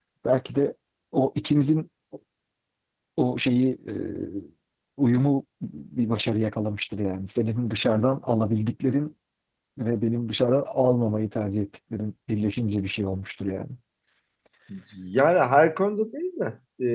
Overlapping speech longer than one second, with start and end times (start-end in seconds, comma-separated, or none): none